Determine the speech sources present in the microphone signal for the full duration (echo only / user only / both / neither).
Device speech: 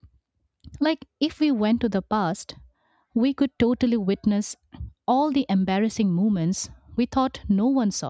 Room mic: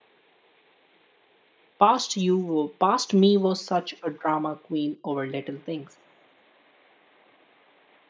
user only